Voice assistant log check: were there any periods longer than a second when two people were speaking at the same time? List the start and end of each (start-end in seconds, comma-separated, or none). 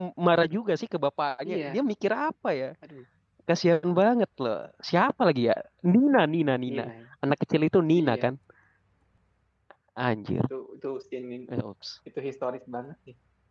none